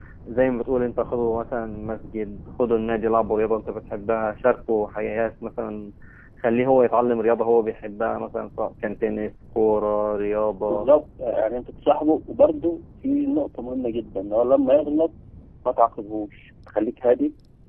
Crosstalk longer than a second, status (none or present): none